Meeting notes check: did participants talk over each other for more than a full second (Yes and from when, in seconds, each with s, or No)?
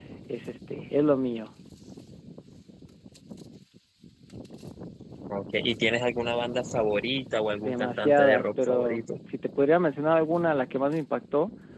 Yes, from 7.6 s